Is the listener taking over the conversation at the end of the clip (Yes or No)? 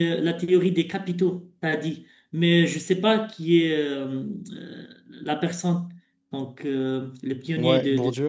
Yes